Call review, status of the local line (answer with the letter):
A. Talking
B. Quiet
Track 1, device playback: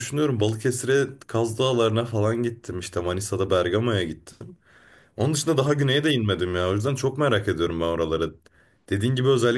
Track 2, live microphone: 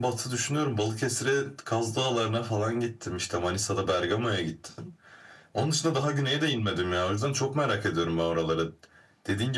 B